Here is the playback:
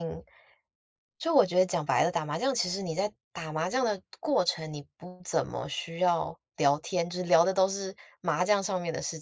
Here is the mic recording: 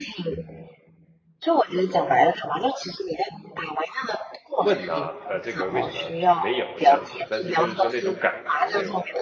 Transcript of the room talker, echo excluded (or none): 问啊，呃，这个为什么没有这样子？但是就是说那种感觉，那种